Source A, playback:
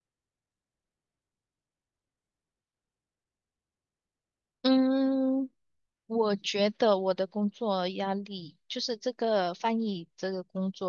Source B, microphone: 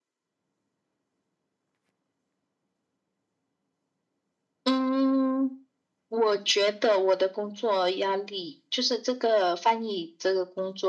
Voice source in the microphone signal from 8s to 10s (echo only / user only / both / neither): echo only